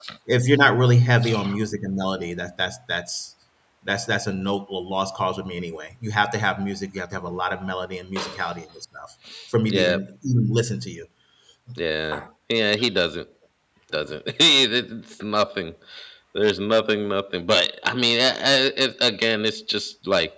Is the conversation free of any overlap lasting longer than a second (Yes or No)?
Yes